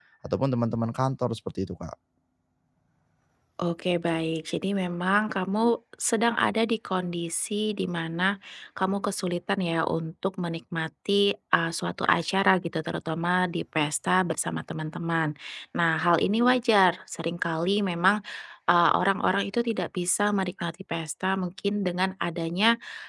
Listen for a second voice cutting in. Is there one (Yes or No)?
No